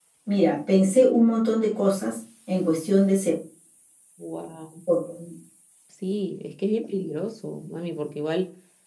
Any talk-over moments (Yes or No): No